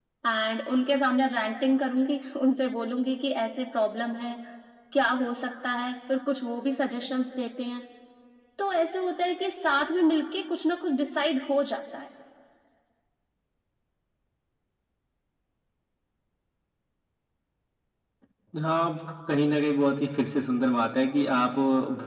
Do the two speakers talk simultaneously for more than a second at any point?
No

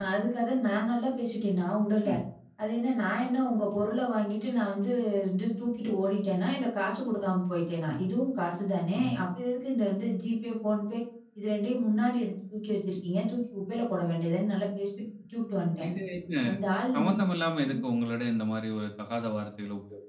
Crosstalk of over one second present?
No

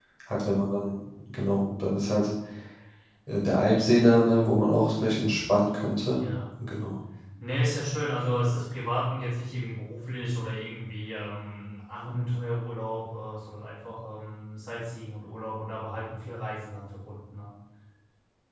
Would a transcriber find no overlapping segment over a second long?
Yes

